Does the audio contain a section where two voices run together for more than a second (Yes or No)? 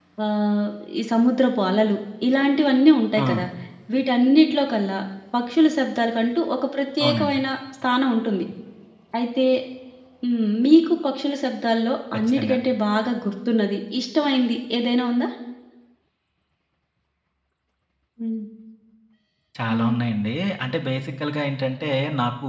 No